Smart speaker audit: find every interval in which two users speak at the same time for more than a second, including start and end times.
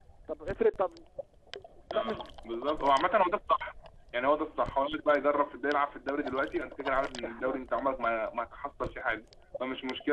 none

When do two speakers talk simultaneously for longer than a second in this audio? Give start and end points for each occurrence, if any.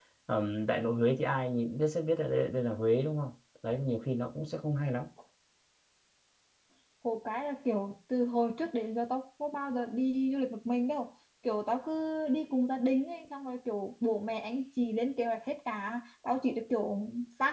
none

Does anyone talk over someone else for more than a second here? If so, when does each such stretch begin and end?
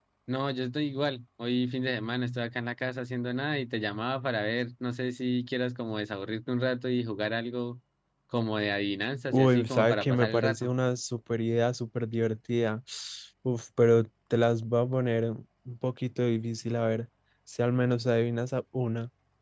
9.3-10.7

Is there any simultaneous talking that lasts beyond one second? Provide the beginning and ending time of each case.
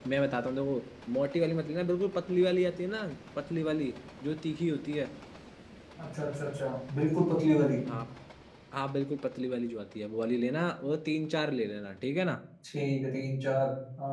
none

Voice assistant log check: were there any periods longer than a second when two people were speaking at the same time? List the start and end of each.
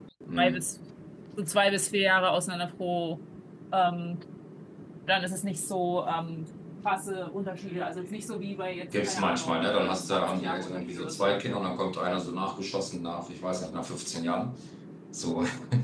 8.9-11.4

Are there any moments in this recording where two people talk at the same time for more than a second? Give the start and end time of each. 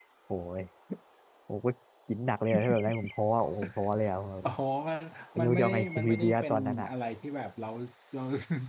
5.4-6.9

